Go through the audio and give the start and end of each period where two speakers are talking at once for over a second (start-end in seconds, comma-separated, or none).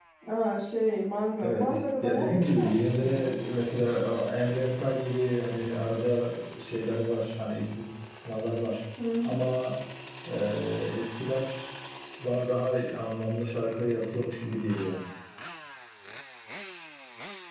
1.4-3.3